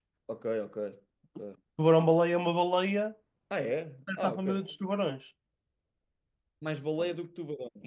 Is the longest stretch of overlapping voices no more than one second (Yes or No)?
Yes